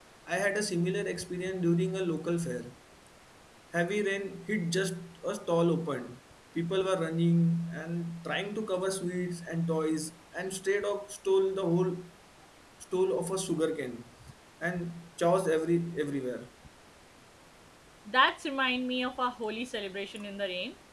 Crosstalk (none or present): none